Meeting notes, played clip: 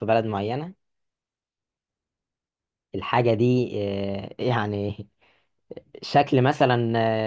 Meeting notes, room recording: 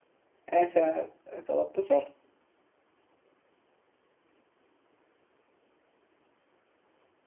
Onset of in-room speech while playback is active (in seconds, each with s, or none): 0.5 s